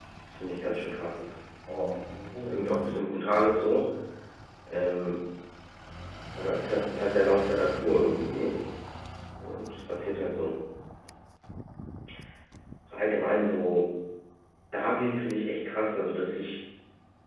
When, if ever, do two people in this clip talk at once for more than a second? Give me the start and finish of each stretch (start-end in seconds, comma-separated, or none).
2.5-3.8